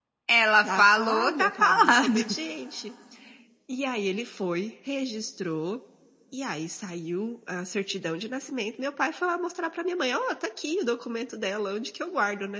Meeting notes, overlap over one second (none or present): present